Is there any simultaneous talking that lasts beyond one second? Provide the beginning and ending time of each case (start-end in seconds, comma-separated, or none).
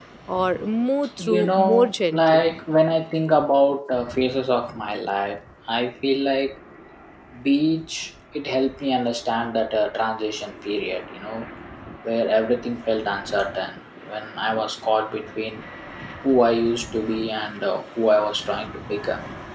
1.2-2.5